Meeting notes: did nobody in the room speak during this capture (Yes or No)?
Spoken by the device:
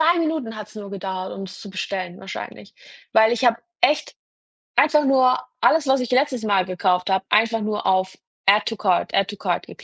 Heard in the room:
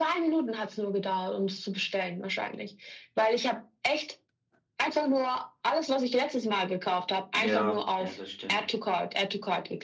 No